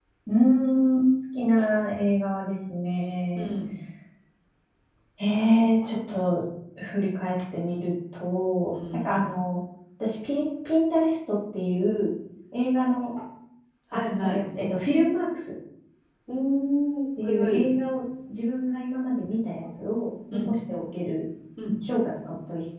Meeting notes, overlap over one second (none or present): none